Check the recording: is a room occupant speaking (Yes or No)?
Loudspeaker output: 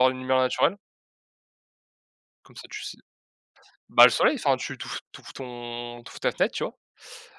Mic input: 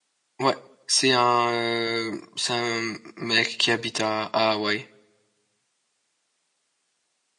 Yes